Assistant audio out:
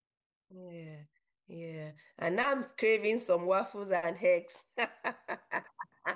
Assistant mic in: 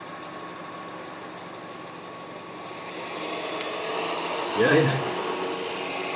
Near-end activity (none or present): present